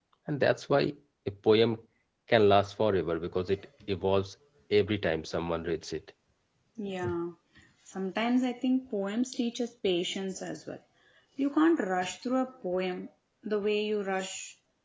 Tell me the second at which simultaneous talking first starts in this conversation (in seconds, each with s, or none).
none